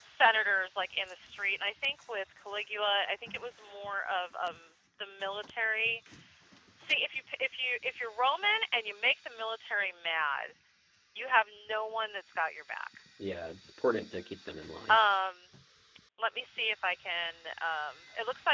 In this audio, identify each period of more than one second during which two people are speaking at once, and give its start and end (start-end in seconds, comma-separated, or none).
none